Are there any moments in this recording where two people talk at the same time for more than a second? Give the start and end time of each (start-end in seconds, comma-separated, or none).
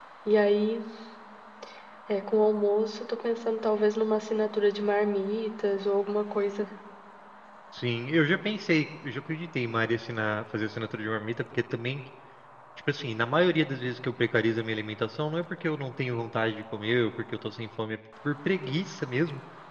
none